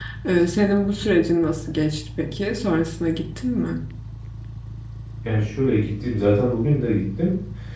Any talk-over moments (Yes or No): No